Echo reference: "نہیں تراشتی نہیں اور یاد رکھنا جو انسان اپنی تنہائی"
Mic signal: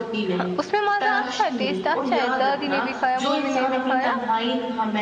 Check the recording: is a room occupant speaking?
Yes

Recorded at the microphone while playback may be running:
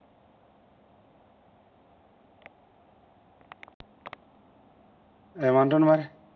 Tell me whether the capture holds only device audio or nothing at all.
No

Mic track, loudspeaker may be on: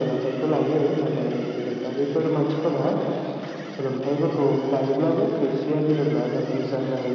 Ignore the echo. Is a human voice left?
No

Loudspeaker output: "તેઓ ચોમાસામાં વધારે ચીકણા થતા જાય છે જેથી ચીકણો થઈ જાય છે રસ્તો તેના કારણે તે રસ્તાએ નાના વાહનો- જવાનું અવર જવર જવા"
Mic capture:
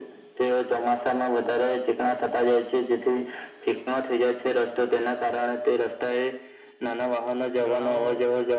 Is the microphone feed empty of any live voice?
No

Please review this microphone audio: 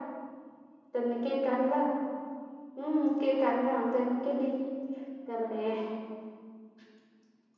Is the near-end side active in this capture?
No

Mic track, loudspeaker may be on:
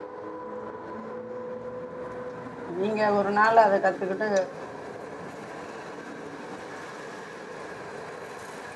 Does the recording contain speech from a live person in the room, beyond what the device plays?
Yes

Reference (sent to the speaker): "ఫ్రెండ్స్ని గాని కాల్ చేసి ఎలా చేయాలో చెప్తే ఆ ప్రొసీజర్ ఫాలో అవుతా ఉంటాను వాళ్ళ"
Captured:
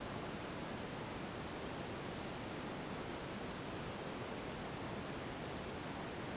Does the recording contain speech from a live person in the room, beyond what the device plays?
No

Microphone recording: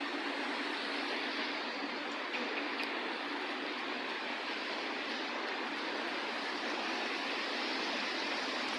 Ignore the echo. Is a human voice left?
No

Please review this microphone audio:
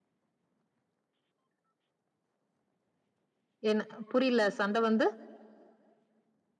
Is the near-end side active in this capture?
Yes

